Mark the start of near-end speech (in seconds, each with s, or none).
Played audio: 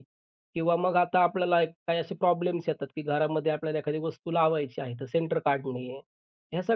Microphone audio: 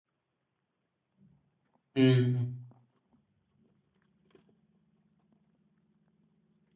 2.0 s